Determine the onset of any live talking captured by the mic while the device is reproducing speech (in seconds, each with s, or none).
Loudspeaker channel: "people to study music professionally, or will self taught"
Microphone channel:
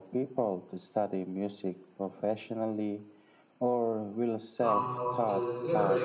4.4 s